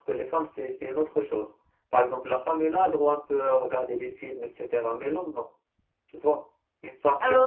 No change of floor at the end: No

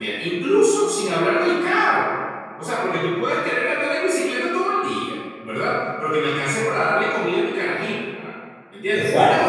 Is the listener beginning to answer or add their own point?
No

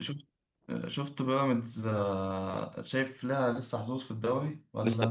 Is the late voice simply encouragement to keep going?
No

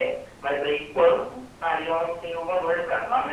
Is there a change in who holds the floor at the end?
Yes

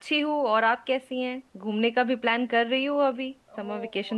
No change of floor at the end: No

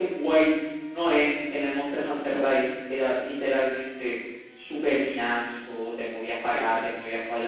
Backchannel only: Yes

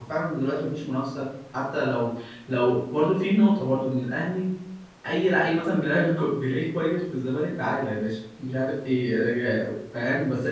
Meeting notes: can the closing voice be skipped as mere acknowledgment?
Yes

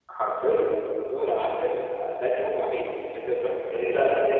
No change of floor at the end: No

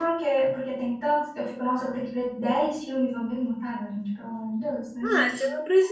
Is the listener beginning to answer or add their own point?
Yes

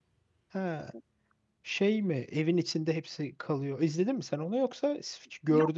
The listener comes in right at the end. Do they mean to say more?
Yes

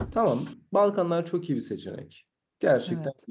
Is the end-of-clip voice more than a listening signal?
No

